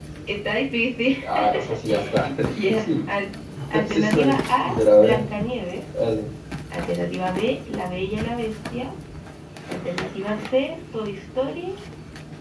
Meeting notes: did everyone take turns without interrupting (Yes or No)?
No